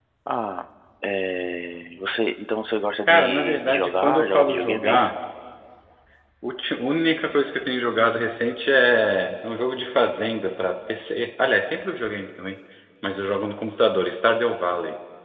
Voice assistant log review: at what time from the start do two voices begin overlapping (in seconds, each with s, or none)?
3.1 s